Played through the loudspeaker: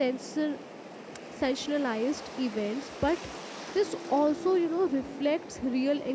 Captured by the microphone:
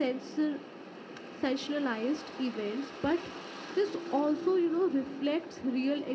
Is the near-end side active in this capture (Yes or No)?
No